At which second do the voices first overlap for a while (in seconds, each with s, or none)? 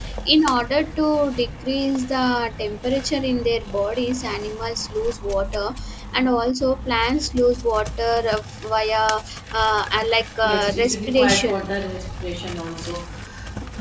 10.4 s